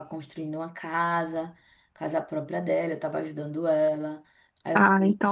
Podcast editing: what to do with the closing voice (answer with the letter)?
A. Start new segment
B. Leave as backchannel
A